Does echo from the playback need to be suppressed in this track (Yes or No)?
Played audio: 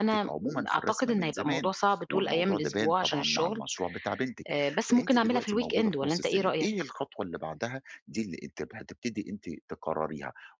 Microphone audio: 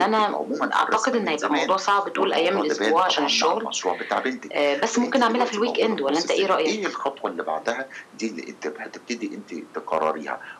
Yes